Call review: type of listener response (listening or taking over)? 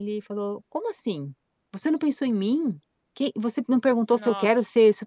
listening